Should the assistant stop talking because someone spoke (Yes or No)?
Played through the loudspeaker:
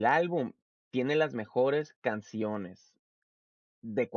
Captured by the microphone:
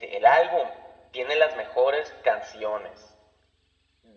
No